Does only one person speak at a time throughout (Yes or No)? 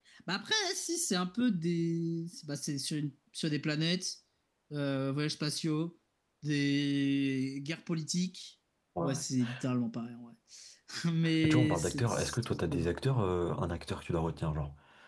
No